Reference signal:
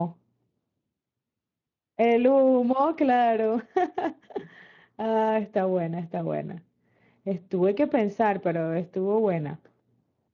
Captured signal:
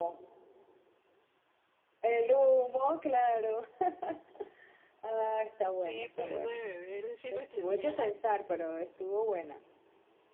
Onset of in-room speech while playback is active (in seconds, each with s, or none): 5.7 s